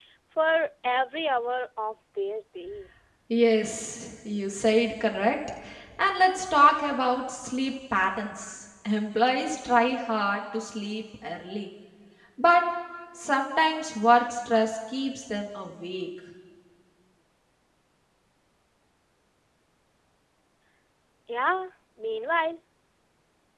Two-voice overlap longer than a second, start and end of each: none

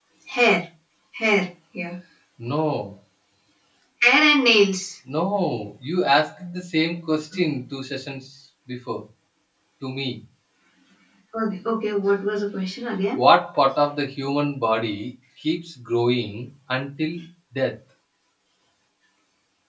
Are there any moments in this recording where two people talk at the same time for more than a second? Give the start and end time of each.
none

